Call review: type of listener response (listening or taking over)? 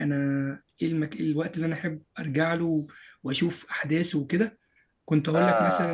listening